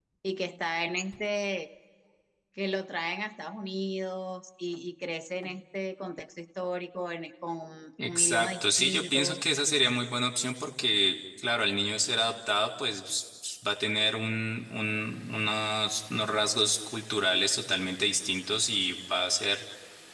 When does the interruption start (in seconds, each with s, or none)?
8.0 s